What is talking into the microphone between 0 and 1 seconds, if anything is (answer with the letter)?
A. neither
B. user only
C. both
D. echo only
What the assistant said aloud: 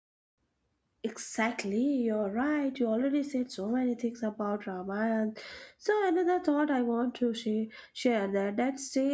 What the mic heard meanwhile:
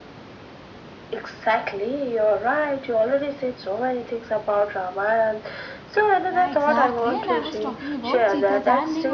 A